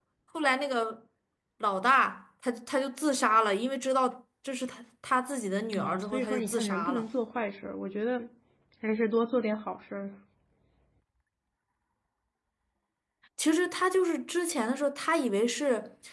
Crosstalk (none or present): present